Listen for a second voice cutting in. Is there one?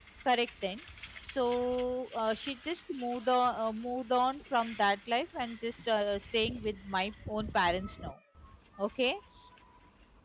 No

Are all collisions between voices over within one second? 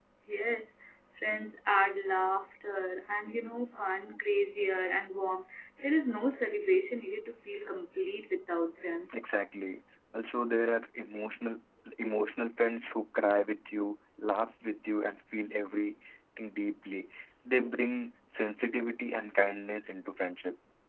Yes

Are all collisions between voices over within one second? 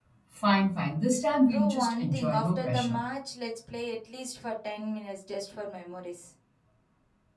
No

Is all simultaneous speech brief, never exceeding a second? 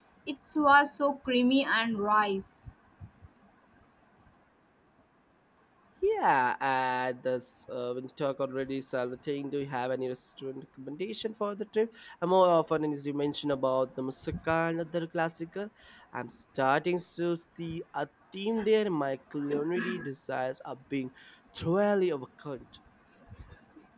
Yes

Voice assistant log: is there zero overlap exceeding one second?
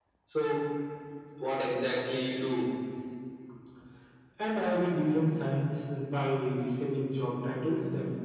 Yes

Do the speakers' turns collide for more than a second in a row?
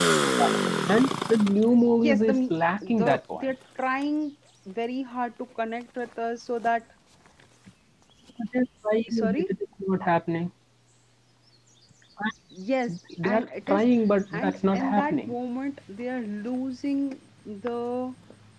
Yes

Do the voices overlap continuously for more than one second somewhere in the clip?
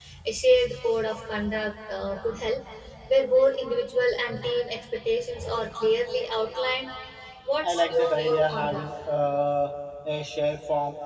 Yes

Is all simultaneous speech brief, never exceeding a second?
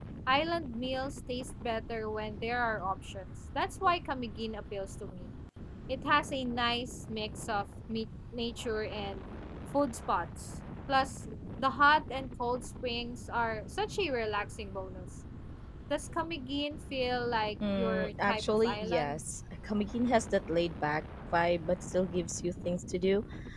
No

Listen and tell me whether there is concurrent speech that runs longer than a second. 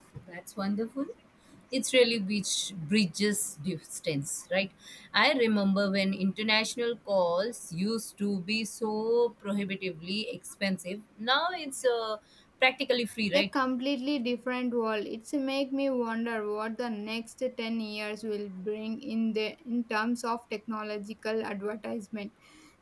No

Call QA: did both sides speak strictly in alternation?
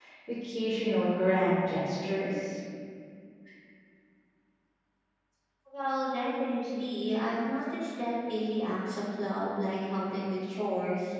Yes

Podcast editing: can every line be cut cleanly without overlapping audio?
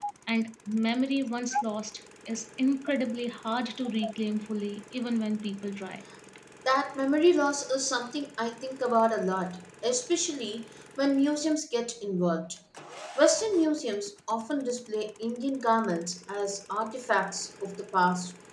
Yes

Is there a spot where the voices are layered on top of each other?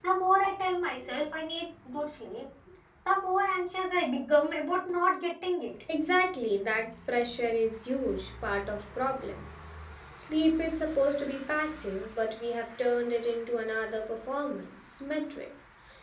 No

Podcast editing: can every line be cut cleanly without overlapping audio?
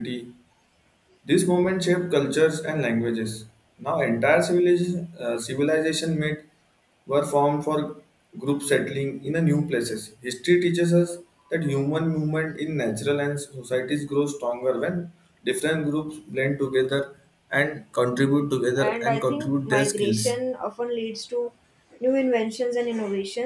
No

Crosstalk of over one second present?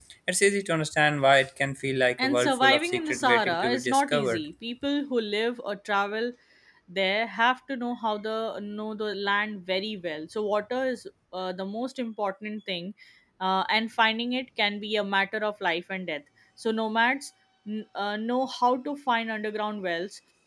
Yes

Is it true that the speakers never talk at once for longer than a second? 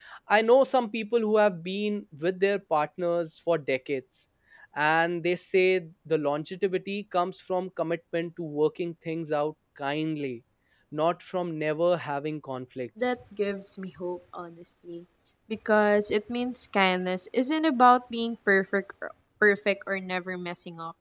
Yes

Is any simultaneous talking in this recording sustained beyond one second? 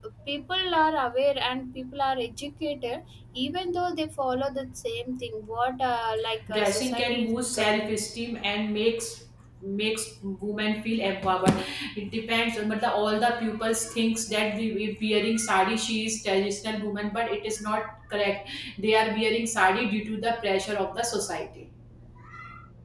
Yes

